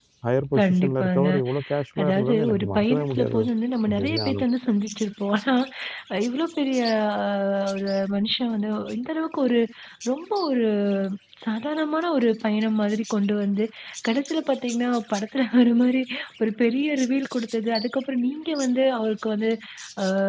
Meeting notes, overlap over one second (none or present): present